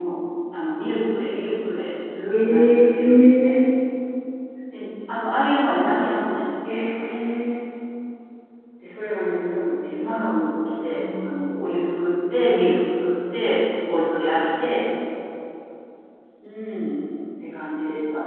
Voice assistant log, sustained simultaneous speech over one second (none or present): present